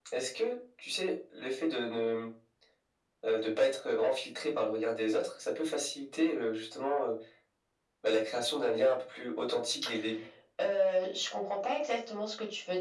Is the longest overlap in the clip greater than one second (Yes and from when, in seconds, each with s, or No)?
No